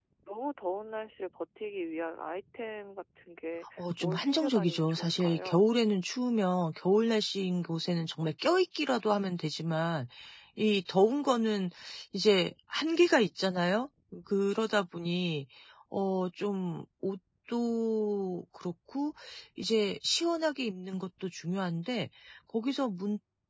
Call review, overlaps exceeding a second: present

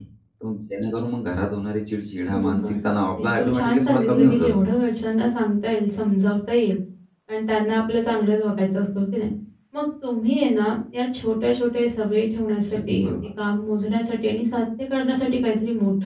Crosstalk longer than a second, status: present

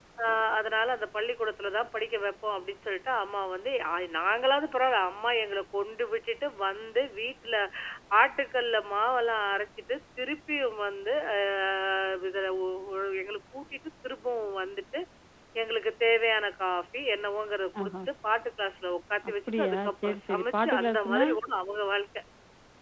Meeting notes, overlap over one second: present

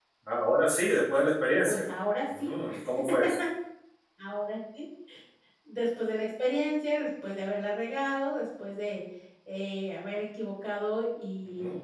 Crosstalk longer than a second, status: none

